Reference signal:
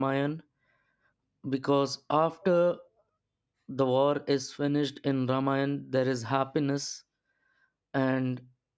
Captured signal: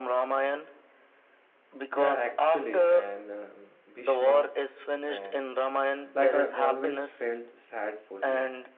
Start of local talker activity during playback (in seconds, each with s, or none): 1.9 s